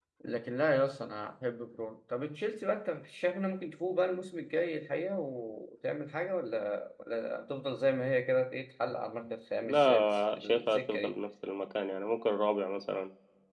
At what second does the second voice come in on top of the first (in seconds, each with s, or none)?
9.6 s